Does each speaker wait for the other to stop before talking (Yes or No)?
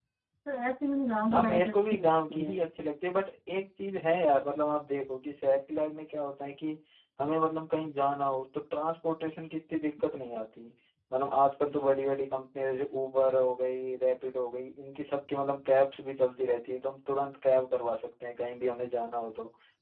No